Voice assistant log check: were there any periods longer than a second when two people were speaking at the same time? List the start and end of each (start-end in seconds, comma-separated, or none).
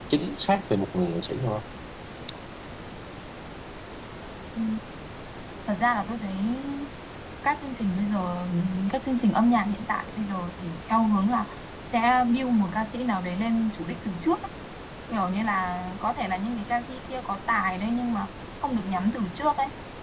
none